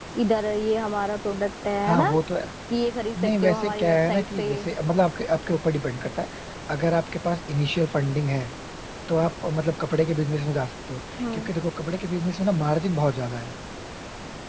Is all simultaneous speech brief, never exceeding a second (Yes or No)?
No